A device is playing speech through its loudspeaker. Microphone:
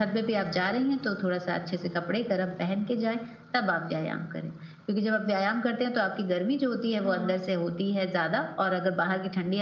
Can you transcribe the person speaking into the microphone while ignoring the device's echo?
हाँ।

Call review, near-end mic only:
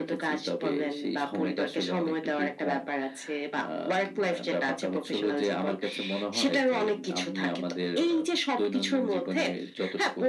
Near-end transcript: none

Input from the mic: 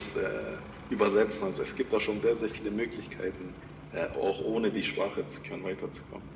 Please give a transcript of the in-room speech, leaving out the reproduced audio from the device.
none

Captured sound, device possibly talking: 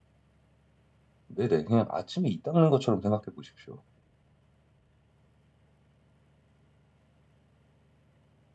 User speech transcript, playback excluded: 네네. 그냥 아침에 이 닦는 것처럼 생각해 보십시오.

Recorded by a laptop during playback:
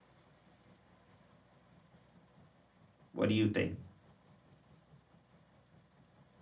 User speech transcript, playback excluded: What do you think?

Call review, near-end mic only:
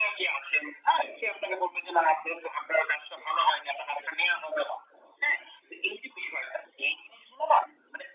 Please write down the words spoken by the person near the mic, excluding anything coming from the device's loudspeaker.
none

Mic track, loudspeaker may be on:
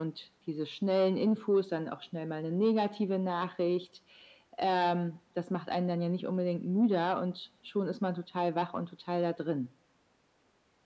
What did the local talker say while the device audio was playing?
none

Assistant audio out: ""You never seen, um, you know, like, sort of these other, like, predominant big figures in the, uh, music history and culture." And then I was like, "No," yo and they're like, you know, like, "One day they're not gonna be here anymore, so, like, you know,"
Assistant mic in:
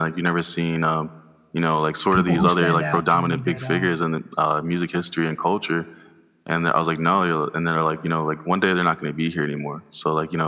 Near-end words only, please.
people who stand out to me that uh,

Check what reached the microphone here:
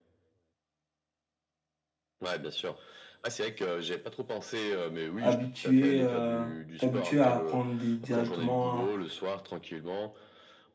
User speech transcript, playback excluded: habituer, heu, t'habituer à prendre des directement un

